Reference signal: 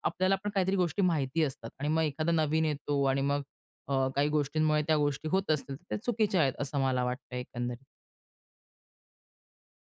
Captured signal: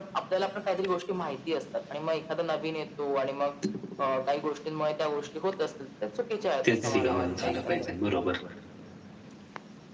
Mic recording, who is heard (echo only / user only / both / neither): both